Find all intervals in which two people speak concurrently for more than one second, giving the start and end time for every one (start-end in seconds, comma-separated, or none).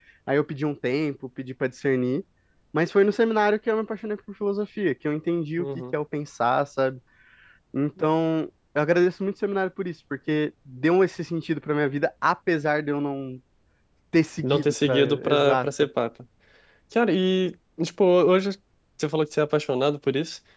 14.4-15.7